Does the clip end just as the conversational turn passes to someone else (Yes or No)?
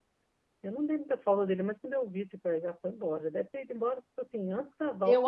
Yes